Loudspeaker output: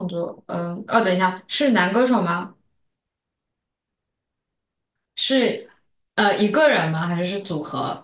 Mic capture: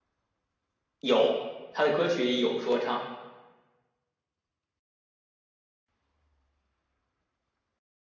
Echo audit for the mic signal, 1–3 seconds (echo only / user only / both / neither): user only